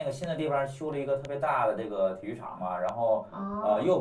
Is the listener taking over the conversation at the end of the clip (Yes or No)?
No